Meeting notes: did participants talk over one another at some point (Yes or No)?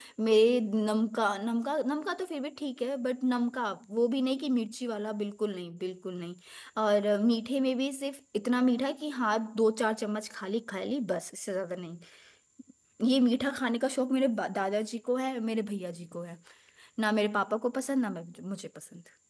No